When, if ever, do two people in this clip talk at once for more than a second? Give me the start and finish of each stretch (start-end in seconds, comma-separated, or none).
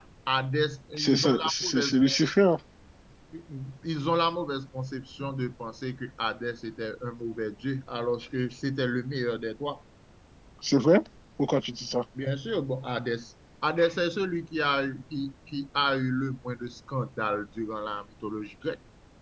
1.0-2.2